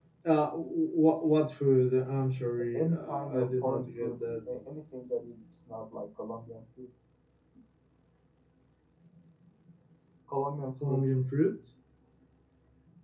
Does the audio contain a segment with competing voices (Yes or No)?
Yes